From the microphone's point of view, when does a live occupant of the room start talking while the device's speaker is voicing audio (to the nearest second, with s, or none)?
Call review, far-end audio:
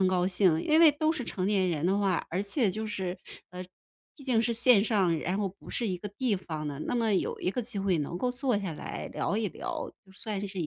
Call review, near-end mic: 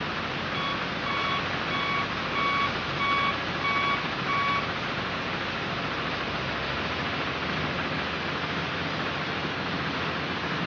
none